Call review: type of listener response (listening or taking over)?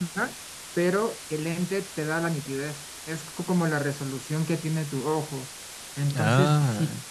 listening